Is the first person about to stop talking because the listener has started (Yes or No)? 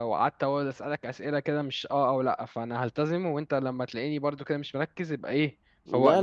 Yes